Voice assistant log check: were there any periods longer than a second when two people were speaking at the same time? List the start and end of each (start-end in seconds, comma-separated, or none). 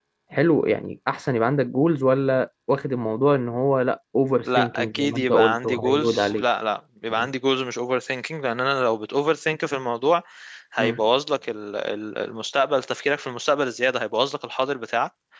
4.5-6.5